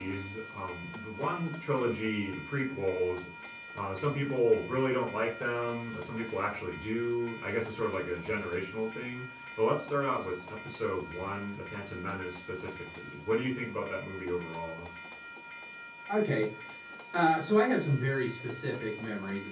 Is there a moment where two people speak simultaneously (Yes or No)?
No